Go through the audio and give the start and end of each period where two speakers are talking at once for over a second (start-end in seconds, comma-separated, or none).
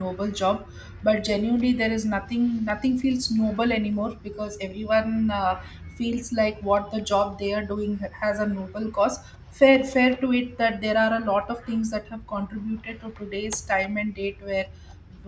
none